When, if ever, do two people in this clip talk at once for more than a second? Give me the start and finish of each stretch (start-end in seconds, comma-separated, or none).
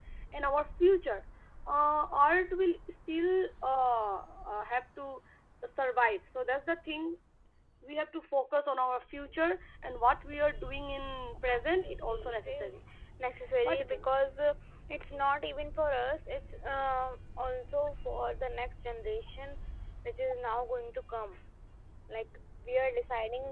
11.5-12.8